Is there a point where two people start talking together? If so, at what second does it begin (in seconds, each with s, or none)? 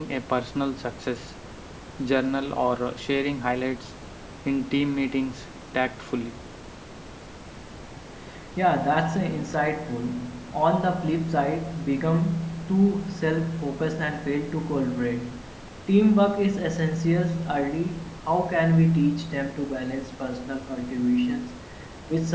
none